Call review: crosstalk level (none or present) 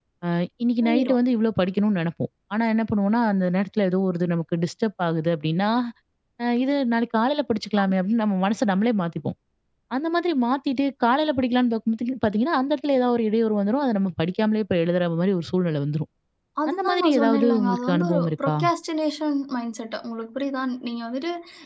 present